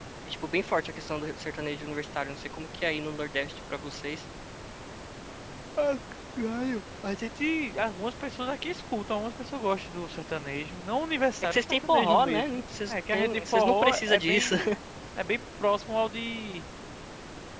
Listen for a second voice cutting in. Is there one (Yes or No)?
Yes